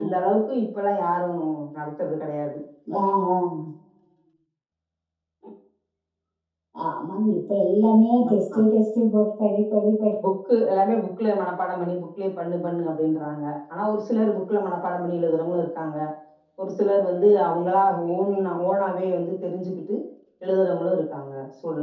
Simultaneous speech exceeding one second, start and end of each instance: none

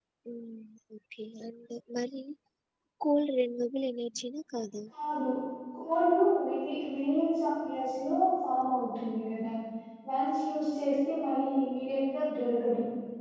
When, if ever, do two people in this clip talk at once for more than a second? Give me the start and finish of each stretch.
none

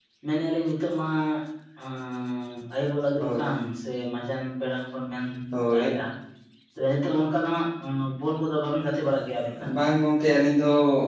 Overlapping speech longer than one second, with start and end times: none

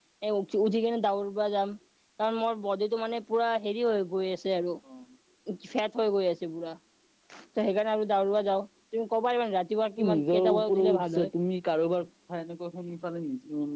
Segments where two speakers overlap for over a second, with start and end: 10.1-11.3

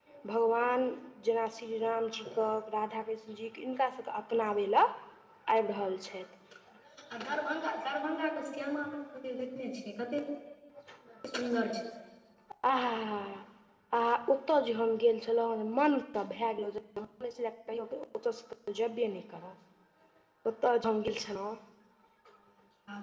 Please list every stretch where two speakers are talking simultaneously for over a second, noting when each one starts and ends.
none

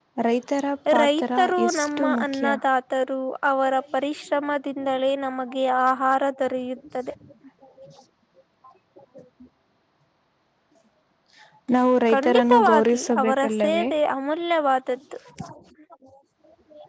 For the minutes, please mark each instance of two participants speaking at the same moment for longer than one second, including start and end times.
1.0-2.4, 12.1-13.9

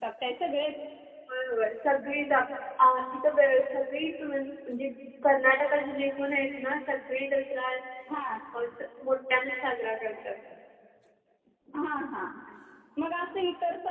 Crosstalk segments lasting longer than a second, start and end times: none

